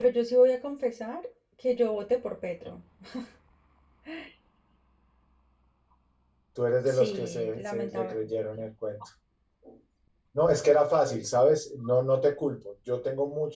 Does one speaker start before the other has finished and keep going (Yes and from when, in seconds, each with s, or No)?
Yes, from 6.8 s